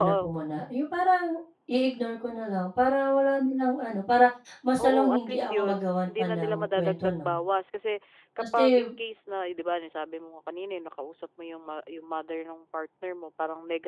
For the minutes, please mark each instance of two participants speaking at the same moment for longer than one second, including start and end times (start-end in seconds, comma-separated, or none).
4.8-7.3